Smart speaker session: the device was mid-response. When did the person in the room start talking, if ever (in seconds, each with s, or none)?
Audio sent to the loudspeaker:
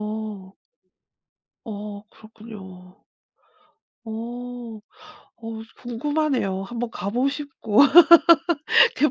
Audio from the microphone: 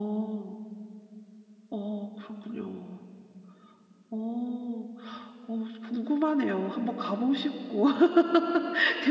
none